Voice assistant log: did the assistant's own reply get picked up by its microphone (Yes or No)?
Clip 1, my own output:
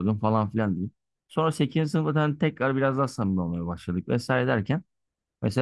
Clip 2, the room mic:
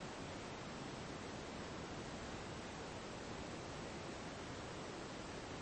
No